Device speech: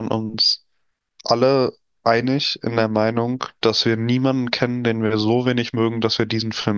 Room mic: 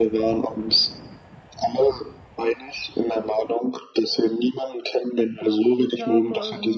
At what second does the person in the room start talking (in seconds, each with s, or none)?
5.7 s